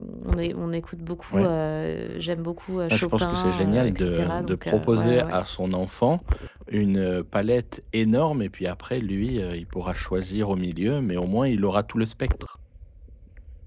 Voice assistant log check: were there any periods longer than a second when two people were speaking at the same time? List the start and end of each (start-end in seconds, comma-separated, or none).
2.9-5.4